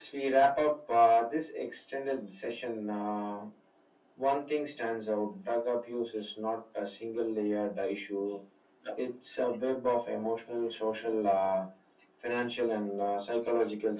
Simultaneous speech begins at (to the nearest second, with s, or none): none